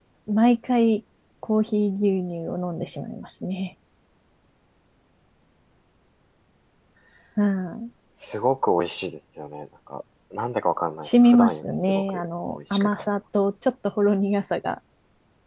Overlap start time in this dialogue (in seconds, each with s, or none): 11.0 s